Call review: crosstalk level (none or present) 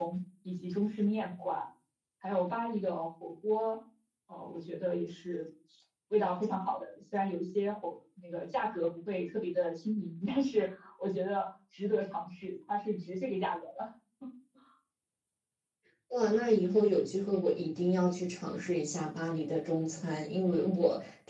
none